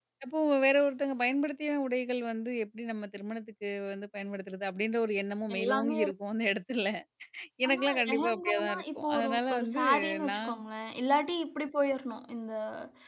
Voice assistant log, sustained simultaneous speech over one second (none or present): present